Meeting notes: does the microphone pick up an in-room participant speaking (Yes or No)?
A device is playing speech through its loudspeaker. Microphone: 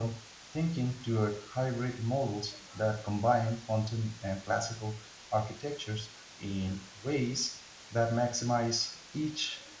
Yes